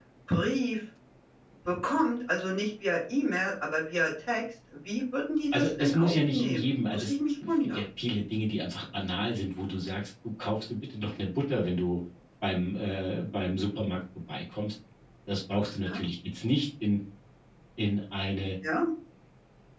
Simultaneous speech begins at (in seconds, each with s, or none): 5.5 s